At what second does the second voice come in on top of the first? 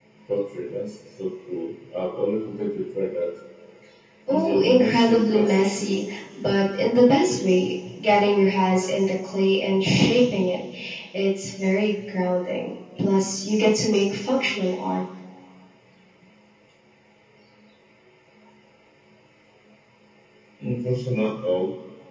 4.3 s

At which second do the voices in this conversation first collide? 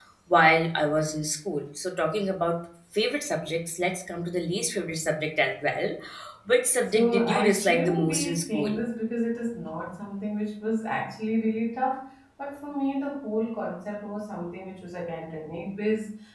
6.9 s

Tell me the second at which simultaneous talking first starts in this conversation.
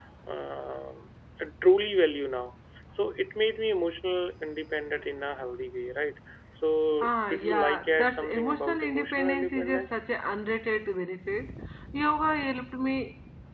7.0 s

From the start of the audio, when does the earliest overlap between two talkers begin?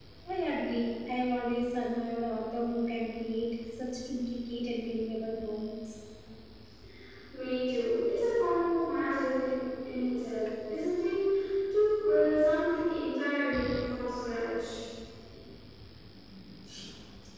none

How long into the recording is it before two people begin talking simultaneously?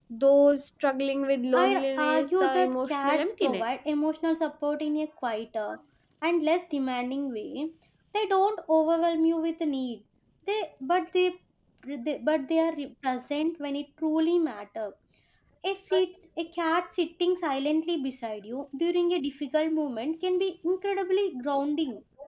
1.5 s

